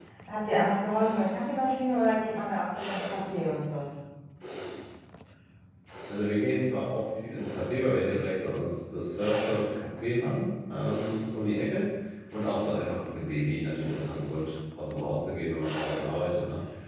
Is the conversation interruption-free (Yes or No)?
Yes